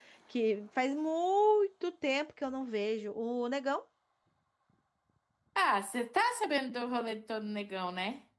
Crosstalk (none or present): none